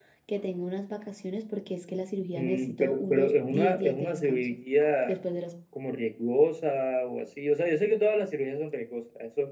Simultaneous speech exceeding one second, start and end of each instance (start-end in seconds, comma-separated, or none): 2.3-4.5